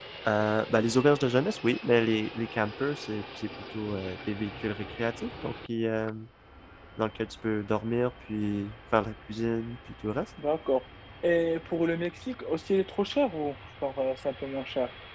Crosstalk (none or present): none